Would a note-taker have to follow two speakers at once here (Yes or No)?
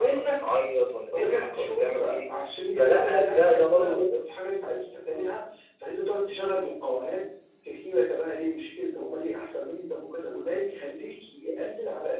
Yes